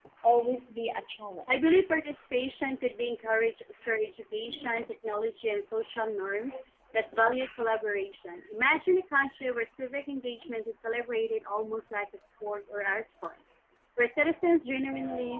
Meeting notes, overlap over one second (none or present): none